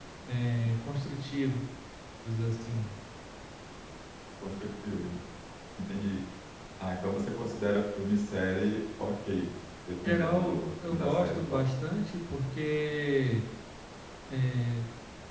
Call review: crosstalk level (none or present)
present